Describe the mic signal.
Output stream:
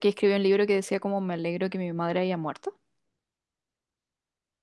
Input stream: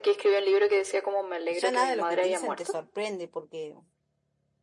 both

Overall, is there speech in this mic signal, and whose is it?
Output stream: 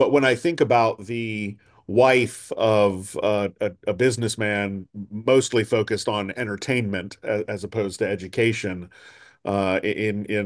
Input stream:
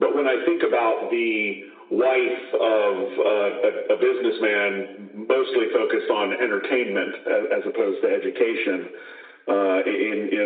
echo only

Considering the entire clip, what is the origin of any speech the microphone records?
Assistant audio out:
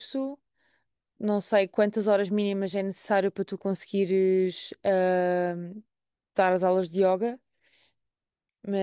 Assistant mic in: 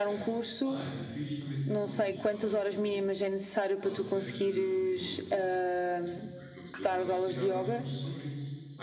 both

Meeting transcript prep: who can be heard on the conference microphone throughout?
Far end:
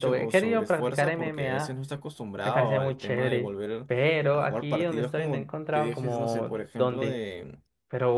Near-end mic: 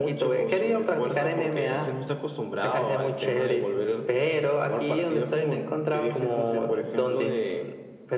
echo only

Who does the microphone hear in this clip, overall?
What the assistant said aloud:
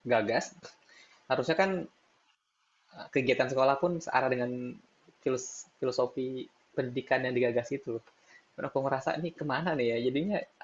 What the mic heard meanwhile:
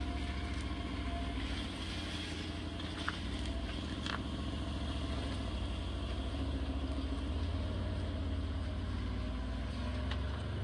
neither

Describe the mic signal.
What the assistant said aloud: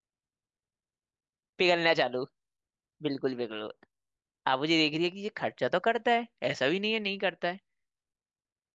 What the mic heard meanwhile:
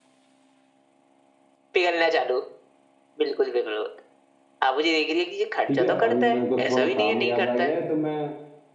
both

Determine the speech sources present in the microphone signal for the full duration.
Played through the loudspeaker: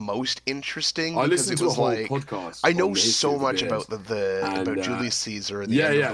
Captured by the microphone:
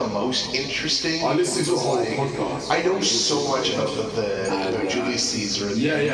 echo only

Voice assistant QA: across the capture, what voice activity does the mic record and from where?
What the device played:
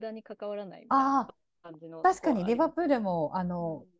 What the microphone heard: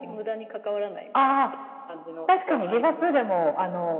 echo only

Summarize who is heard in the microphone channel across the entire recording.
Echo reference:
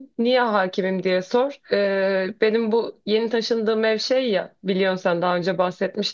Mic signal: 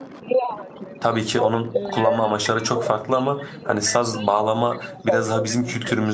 both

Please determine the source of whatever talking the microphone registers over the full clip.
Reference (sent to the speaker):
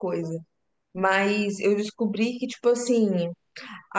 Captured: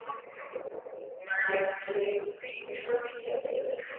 both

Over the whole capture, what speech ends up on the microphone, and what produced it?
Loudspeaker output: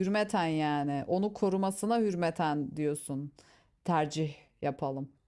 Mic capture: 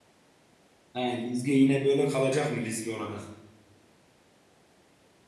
user only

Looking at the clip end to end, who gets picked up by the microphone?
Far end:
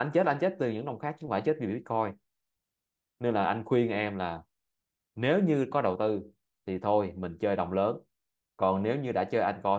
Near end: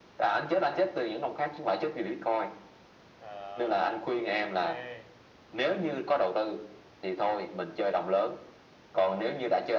both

